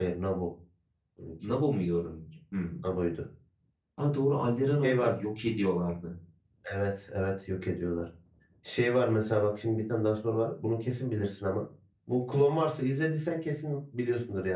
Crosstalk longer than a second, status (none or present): none